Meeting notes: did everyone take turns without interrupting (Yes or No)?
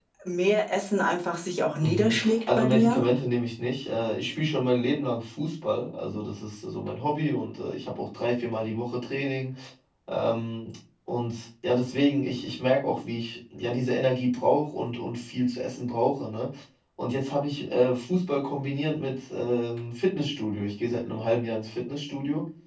No